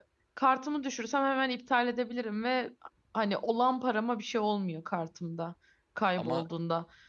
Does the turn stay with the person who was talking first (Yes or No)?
Yes